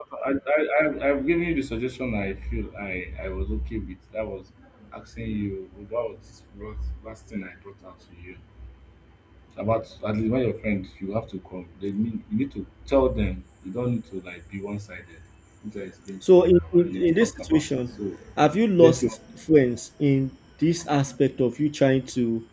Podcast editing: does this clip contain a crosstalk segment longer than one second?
Yes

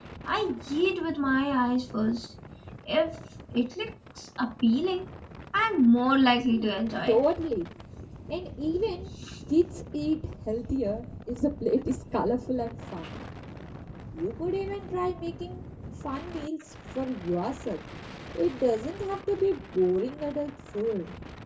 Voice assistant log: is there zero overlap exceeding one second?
Yes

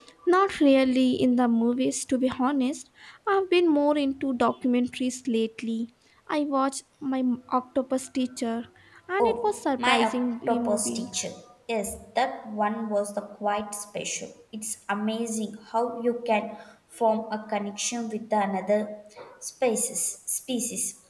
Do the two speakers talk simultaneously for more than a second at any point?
Yes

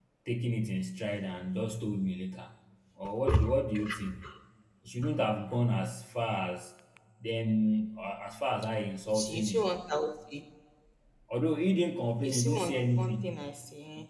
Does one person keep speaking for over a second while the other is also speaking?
Yes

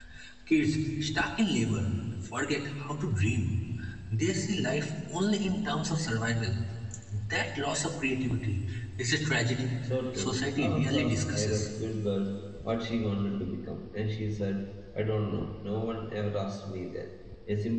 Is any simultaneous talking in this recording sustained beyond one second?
Yes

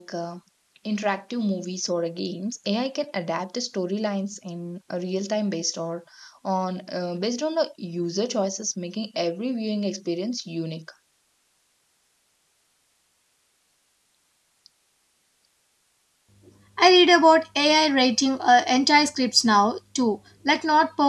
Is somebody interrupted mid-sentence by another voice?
No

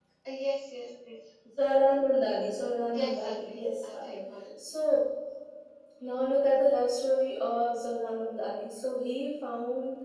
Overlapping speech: Yes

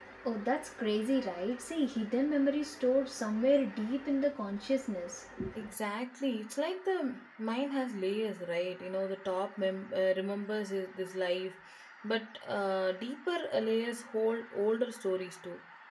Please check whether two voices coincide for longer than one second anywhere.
No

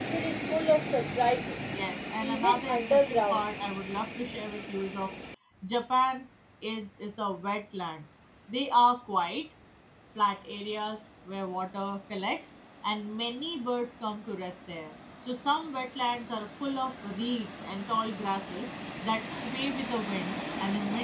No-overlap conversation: No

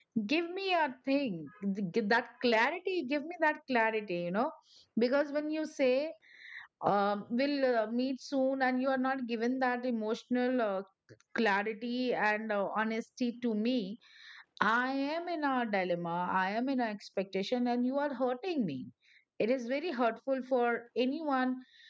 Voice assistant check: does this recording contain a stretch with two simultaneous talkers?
No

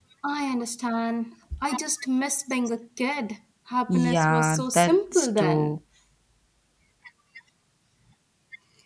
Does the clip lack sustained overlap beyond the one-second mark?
No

